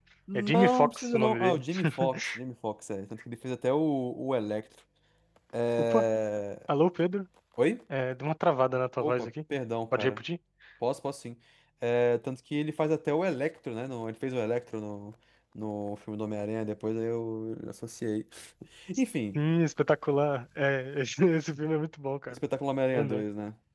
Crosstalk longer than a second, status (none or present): present